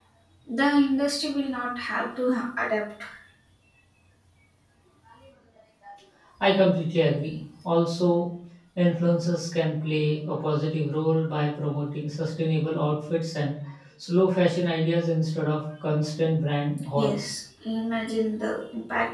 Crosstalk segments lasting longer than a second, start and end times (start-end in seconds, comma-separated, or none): none